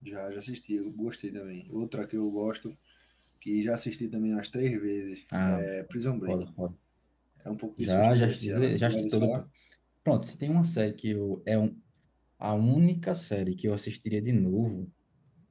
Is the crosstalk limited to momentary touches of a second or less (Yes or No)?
No